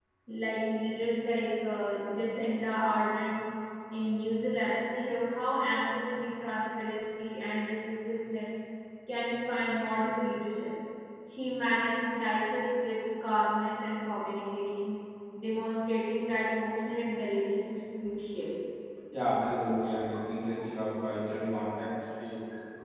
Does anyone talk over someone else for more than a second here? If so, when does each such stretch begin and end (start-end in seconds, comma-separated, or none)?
none